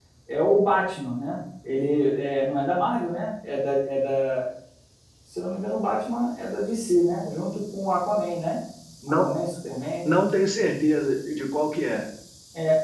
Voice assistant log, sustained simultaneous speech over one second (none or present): none